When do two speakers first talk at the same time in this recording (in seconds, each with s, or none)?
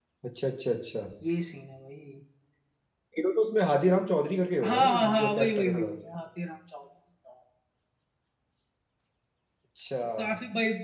4.6 s